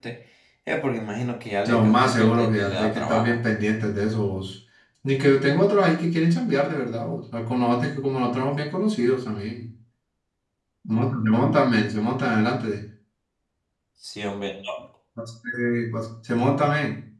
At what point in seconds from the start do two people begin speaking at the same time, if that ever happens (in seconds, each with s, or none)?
1.6 s